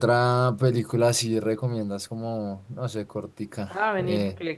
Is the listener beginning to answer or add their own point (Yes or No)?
Yes